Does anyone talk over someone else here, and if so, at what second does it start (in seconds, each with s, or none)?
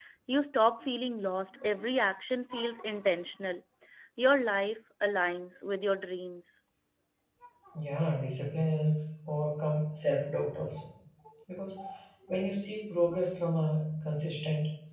none